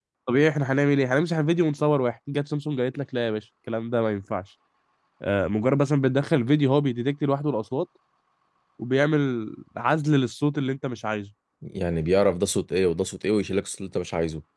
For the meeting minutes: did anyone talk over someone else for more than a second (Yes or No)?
No